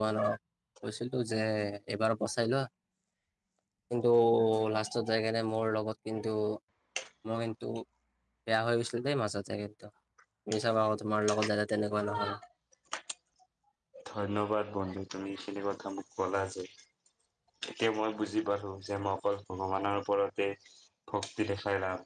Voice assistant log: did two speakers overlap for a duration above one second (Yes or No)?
No